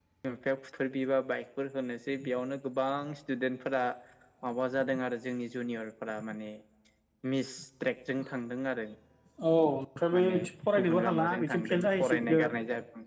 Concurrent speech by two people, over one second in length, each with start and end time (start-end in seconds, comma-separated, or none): 10.8-12.5